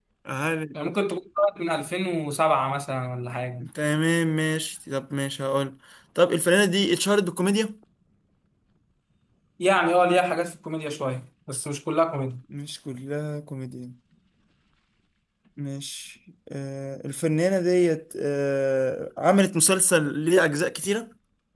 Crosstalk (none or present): none